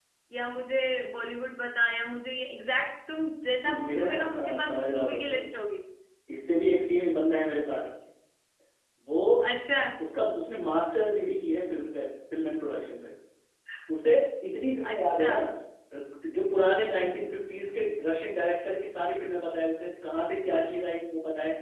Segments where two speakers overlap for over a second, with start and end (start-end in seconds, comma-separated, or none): 3.9-5.5